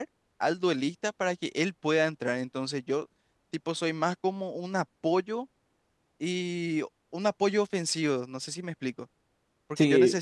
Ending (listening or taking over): listening